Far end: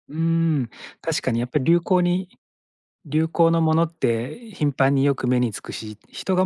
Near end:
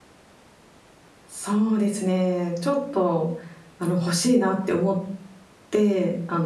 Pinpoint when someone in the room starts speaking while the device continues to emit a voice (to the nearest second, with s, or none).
1 s